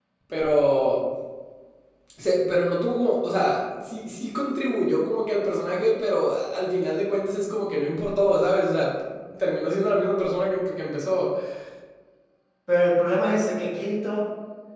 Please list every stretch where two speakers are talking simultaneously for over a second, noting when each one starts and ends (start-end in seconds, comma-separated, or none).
none